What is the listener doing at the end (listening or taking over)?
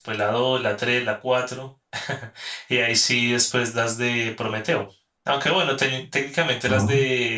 listening